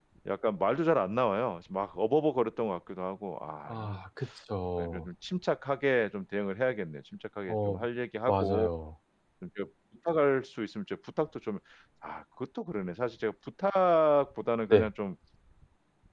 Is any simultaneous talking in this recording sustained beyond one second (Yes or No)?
No